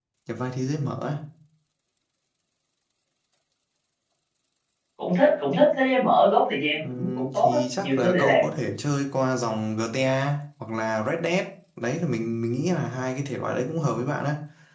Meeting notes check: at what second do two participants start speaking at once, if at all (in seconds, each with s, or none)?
6.8 s